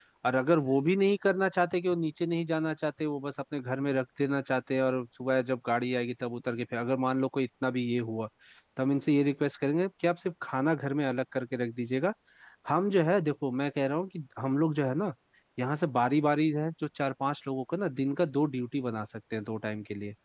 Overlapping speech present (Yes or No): No